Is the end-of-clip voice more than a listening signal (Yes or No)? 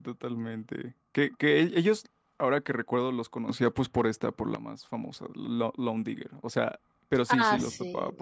Yes